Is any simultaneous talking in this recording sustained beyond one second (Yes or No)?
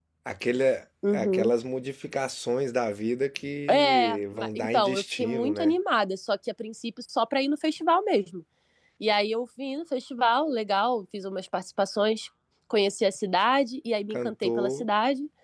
Yes